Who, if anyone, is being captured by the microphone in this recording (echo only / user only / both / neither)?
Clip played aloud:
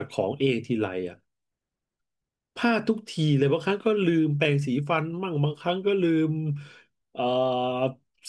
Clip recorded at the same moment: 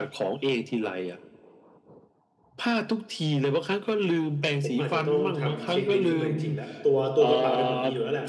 both